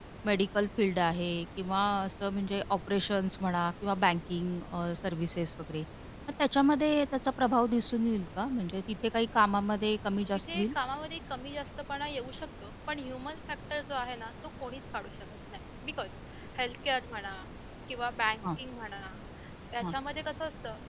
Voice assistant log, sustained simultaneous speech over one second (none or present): none